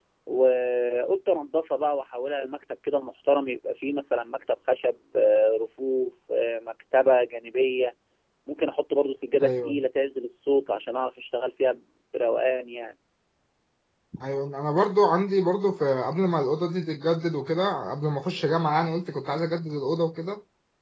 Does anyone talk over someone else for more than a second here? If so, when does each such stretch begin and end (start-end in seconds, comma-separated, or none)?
none